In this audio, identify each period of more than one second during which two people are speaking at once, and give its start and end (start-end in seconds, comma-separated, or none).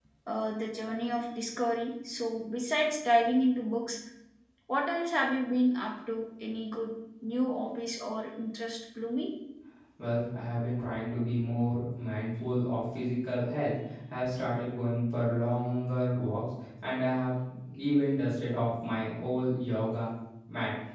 none